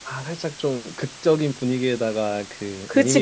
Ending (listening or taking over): listening